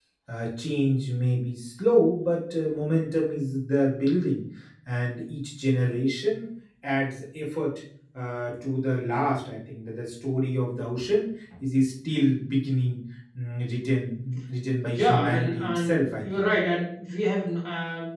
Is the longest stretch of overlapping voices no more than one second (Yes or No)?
No